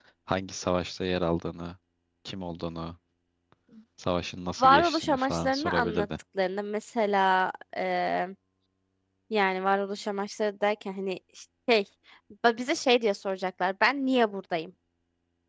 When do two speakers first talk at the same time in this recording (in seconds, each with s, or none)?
4.6 s